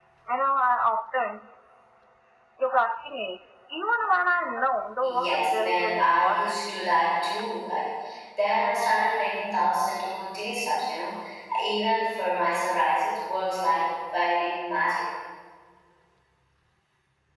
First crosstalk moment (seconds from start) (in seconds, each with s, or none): 5.0 s